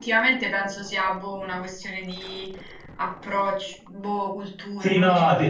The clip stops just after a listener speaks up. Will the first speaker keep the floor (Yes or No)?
No